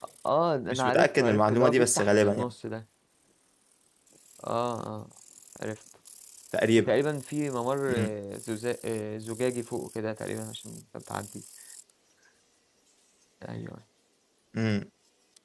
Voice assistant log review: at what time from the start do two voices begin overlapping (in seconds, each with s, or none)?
0.7 s